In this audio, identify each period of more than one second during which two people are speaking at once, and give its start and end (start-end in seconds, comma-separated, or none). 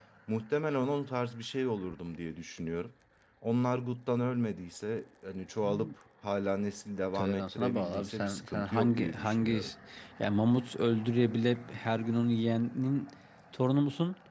7.2-9.6